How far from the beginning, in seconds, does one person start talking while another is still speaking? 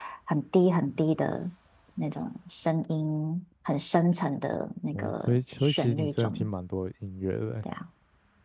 4.9 s

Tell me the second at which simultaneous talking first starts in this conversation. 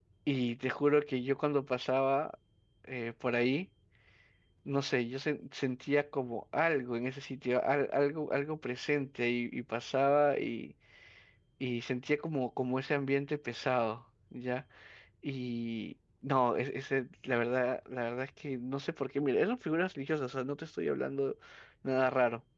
none

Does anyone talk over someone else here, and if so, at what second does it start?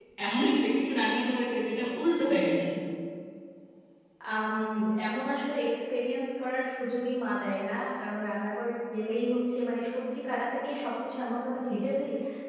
none

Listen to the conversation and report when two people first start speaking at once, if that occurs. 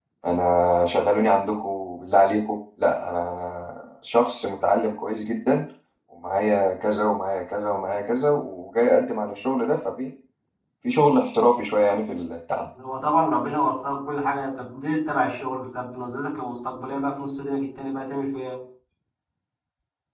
none

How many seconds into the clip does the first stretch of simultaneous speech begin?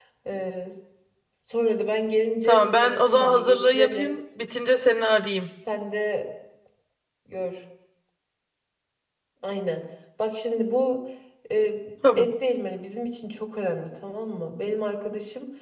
2.5 s

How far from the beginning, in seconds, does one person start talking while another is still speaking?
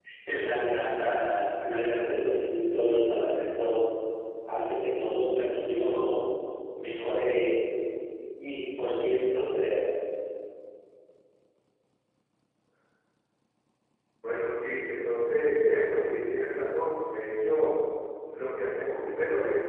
none

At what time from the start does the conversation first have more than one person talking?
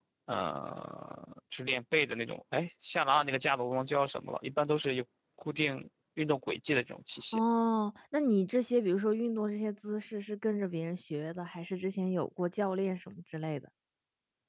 none

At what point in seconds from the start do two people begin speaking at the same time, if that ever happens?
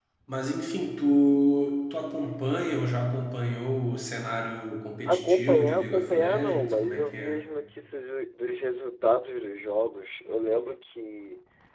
5.0 s

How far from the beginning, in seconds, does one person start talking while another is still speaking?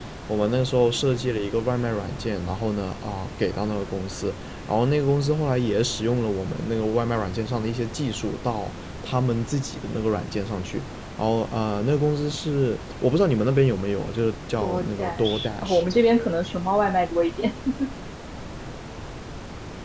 14.6 s

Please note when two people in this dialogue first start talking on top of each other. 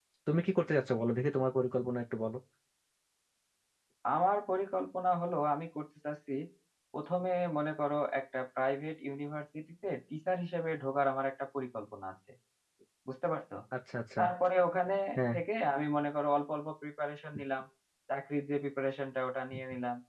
none

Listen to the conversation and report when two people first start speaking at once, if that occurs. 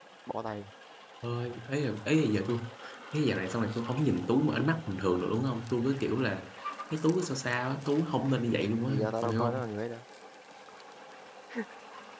8.4 s

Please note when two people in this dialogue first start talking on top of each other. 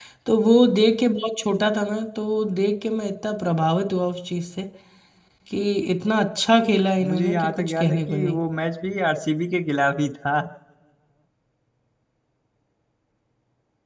7.0 s

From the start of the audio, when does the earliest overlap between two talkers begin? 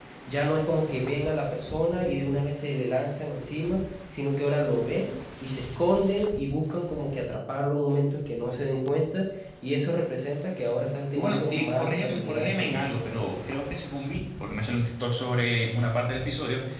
11.1 s

